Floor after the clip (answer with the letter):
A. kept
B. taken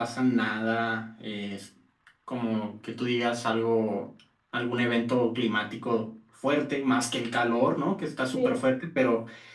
A